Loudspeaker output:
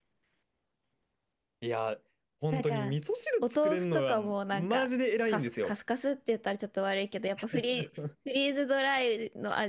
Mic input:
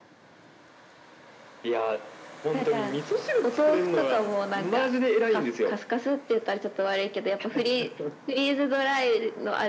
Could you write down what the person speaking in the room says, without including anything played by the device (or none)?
none